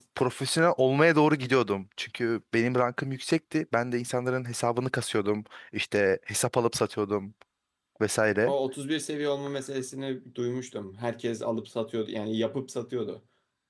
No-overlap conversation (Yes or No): Yes